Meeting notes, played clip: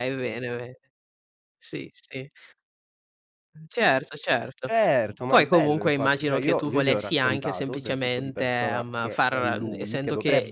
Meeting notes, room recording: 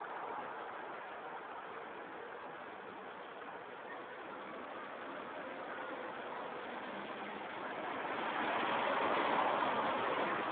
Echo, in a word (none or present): none